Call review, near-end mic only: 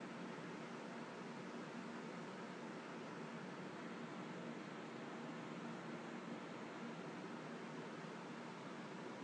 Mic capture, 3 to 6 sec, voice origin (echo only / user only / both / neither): neither